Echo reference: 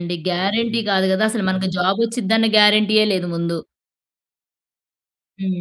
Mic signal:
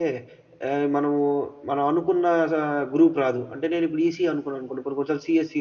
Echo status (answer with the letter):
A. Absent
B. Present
A